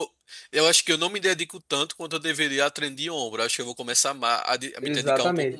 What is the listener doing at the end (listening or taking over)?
taking over